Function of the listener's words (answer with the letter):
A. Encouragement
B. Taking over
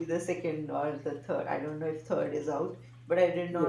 A